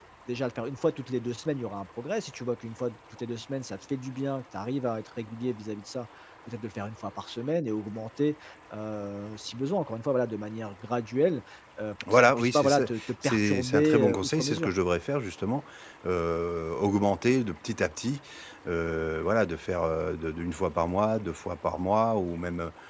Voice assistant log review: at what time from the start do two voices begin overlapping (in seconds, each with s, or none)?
12.1 s